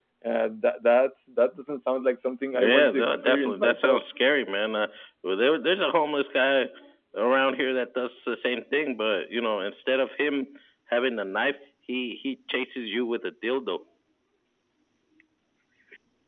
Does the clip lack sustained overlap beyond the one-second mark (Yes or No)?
No